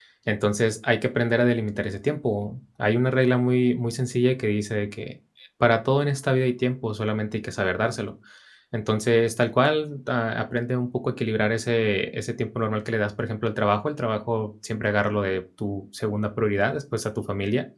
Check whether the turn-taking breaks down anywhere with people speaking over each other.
No

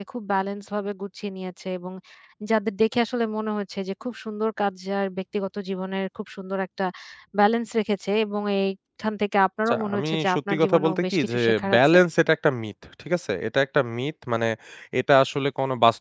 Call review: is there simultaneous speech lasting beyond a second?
Yes, from 9.7 s

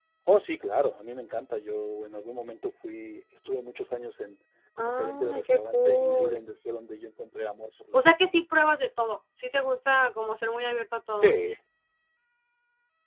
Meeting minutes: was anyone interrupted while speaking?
Yes, from 4.8 s

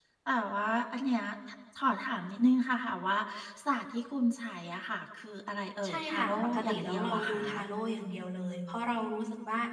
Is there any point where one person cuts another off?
Yes, from 5.8 s

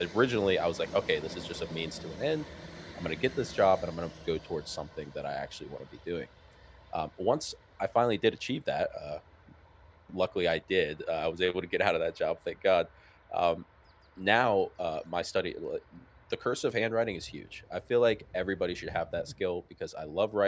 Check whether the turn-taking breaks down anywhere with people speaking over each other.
No

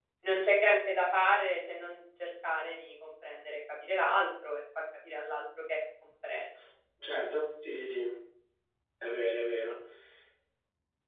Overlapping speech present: No

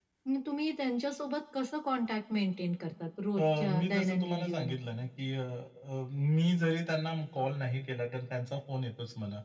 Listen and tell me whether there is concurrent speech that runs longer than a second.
Yes, from 3.4 s

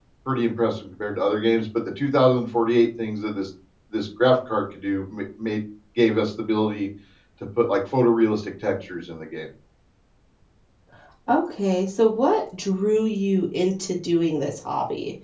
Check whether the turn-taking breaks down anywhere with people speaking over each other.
No

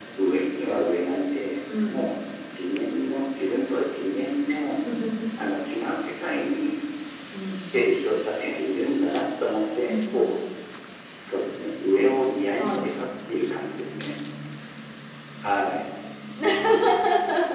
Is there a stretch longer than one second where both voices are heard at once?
No

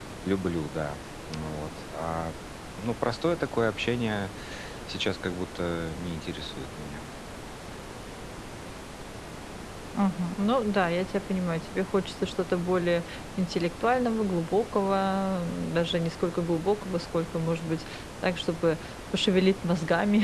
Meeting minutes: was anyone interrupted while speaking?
No

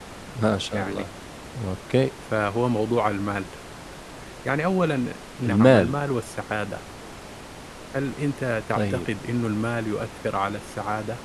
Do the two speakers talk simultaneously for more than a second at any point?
No

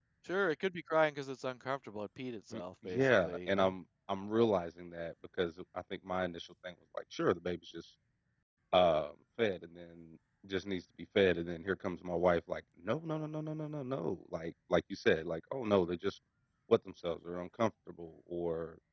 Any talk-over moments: Yes, from 2.5 s

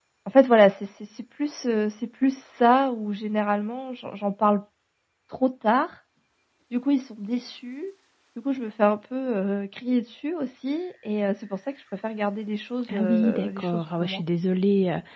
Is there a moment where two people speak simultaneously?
Yes, from 12.9 s

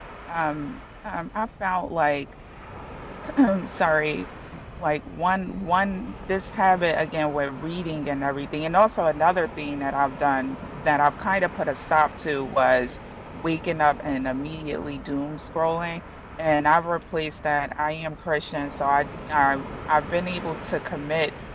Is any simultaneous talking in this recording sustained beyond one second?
No

